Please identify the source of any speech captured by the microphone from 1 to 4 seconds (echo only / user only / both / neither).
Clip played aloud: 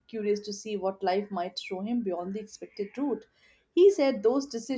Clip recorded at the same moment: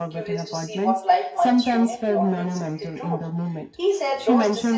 both